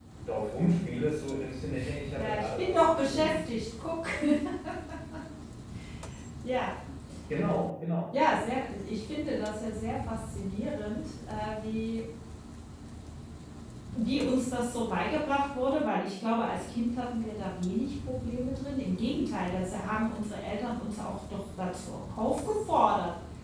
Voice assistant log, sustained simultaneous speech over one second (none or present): present